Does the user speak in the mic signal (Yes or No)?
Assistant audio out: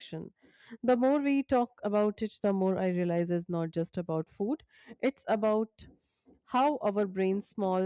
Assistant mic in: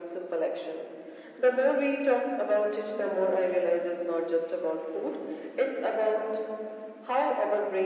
No